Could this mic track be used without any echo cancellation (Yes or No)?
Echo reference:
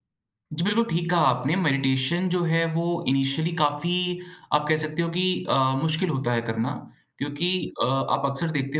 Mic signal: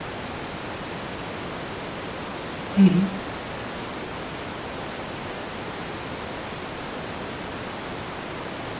Yes